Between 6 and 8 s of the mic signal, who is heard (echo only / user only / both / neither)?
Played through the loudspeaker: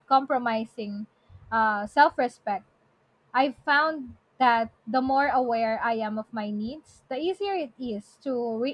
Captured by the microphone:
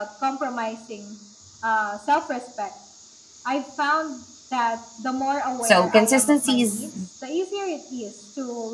both